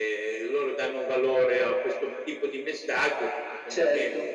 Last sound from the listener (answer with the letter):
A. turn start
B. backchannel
B